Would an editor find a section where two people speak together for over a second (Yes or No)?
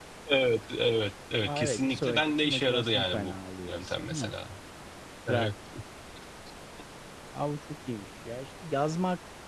Yes